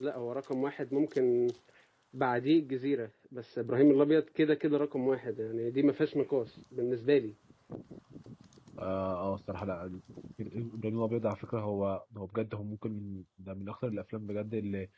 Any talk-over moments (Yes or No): No